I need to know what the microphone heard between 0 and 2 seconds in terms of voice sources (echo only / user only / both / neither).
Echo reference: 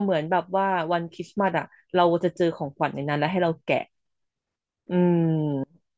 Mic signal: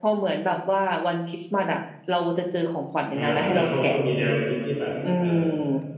echo only